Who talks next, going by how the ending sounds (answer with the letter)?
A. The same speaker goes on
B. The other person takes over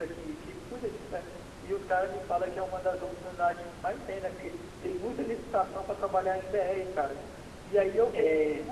A